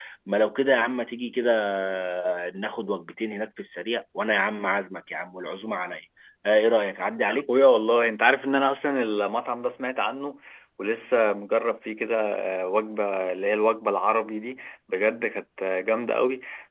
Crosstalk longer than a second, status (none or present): none